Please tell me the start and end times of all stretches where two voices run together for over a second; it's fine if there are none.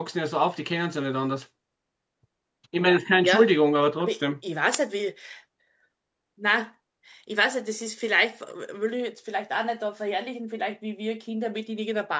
none

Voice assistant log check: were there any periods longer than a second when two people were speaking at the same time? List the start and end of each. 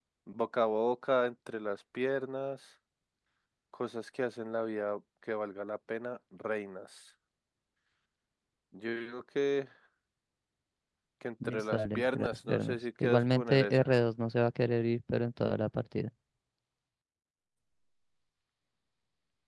11.4-13.8

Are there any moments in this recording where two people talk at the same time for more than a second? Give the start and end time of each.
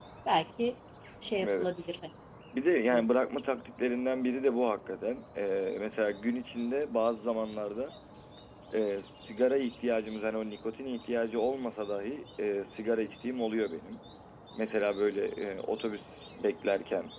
none

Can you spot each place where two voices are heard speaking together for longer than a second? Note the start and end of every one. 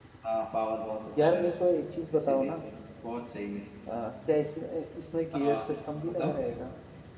none

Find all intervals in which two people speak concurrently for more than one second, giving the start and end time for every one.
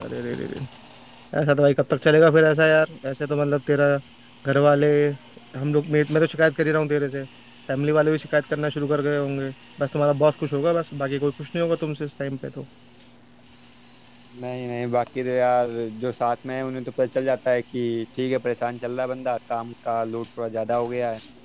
none

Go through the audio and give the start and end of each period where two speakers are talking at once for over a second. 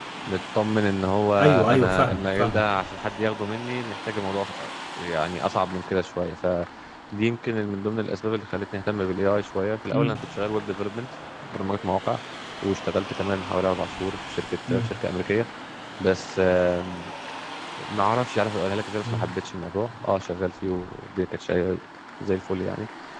1.4-2.9

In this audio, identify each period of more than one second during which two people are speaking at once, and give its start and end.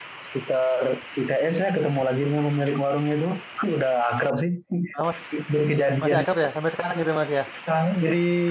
none

